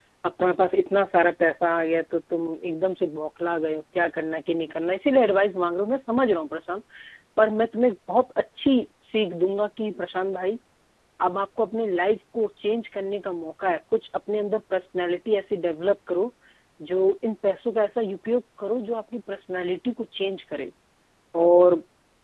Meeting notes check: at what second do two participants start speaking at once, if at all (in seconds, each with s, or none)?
none